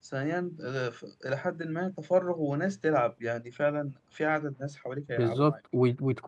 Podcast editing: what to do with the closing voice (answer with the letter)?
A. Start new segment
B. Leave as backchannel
A